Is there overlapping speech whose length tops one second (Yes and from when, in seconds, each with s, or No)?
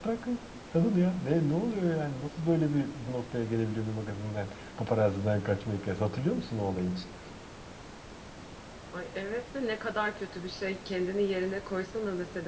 No